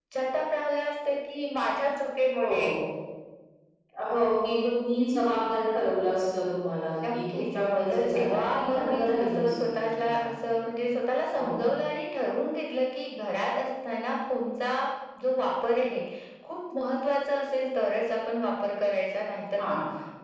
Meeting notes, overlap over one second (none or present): present